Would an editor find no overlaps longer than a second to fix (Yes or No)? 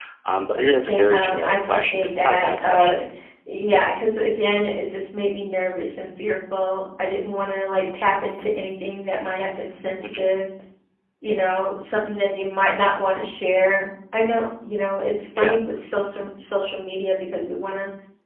No